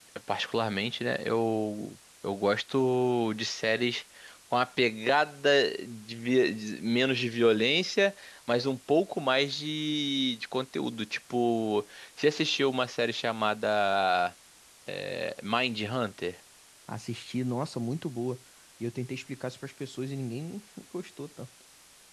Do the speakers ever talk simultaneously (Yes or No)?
No